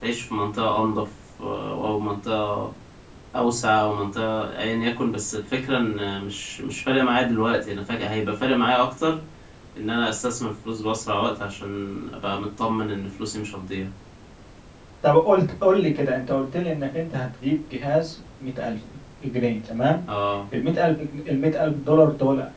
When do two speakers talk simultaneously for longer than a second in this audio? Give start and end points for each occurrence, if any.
none

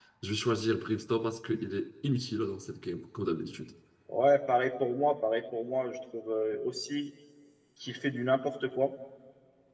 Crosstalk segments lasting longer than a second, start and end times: none

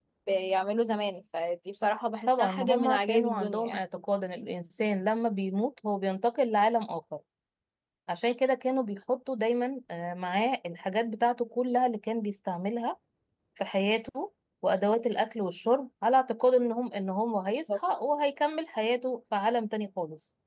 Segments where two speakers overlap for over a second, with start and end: 2.3-3.8

